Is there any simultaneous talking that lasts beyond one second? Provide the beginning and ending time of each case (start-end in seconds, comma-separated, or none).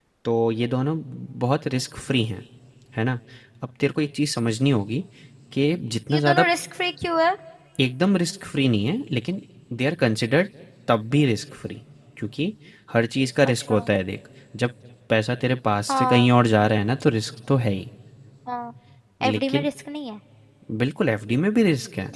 none